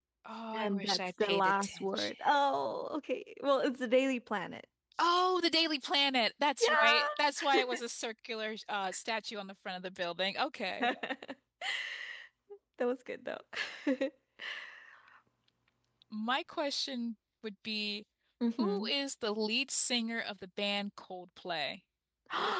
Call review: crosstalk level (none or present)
present